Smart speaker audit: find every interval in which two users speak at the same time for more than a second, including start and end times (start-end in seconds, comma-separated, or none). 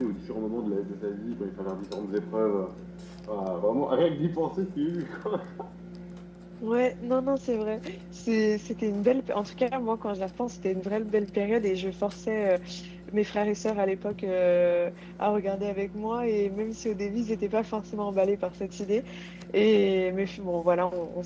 none